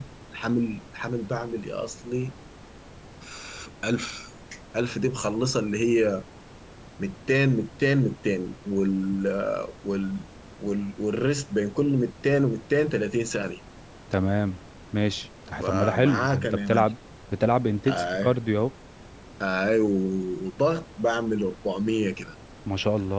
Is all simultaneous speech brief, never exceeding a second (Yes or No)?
No